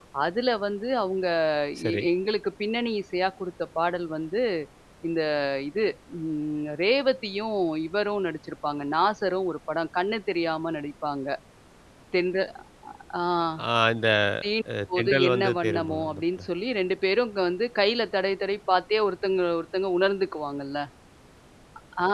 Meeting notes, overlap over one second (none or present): present